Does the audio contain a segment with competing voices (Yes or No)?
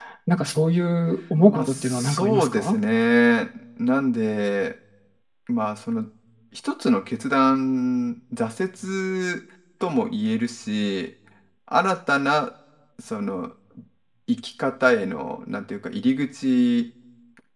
Yes